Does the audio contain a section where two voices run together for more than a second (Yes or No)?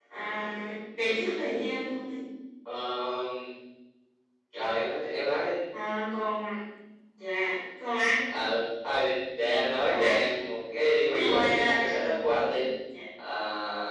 Yes